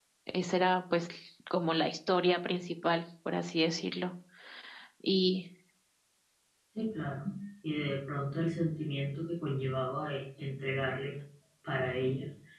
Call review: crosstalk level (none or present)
none